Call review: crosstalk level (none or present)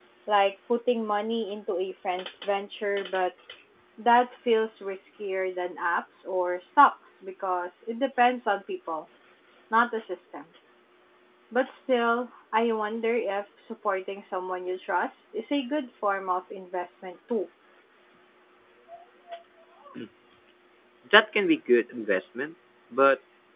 none